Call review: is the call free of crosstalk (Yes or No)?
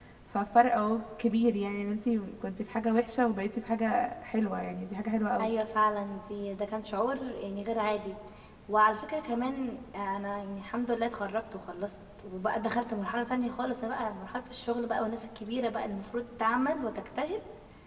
Yes